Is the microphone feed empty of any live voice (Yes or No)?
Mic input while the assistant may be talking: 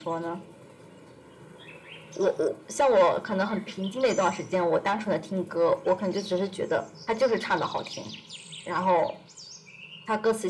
Yes